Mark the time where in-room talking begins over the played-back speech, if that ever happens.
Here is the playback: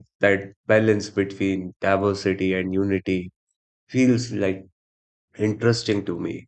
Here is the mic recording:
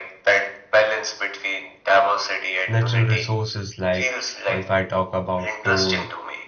2.7 s

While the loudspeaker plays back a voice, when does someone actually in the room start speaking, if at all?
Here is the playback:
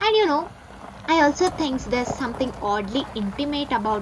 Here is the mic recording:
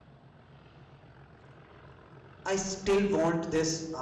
2.4 s

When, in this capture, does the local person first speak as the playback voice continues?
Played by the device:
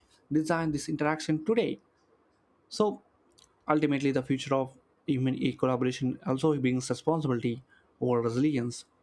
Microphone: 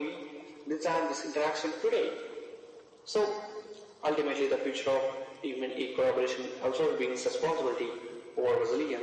none

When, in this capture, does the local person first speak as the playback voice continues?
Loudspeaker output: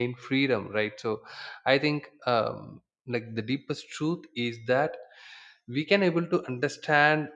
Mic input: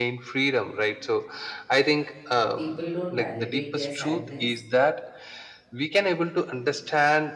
2.5 s

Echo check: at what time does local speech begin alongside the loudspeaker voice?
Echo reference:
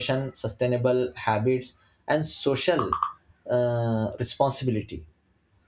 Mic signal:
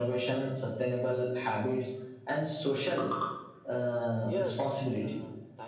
4.2 s

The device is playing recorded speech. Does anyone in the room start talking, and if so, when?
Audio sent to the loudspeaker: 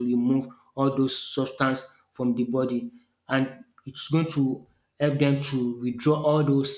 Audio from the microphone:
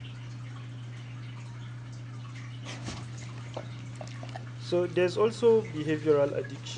4.5 s

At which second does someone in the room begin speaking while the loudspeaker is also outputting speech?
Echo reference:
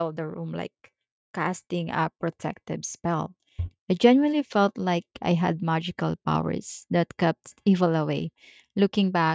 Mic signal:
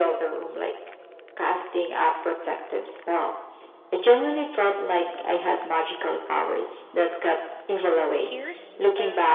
8.2 s

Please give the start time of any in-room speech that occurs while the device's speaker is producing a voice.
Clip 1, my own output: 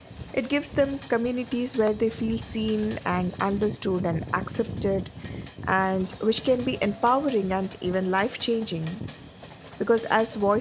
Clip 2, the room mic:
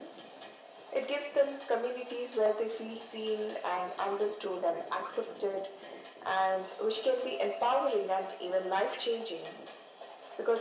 none

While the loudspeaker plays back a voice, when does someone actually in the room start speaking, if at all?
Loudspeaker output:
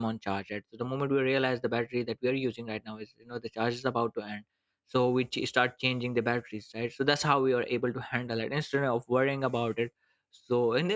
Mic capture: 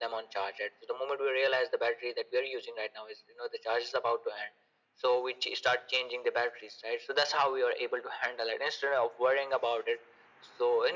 none

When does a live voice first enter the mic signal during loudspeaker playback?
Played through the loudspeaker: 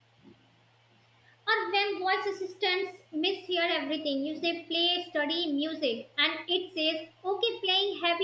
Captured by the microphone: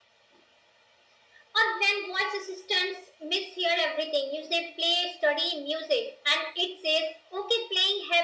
none

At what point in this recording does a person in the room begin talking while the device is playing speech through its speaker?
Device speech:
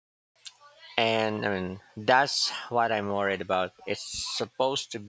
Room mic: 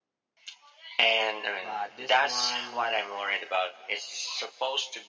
1.6 s

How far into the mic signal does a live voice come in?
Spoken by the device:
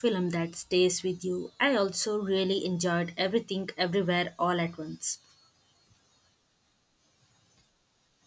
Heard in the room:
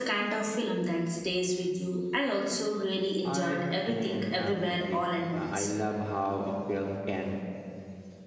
3.2 s

